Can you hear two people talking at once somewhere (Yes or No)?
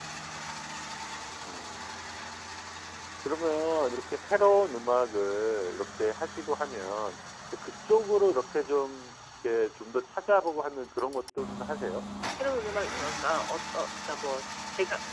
No